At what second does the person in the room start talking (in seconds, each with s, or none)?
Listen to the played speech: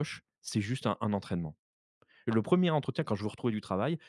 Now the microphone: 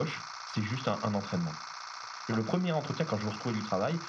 none